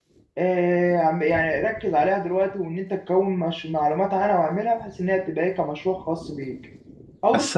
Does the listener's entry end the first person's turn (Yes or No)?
Yes